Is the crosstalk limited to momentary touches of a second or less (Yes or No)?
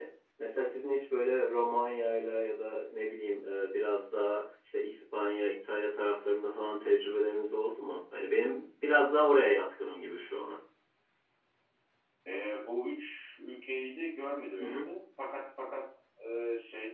Yes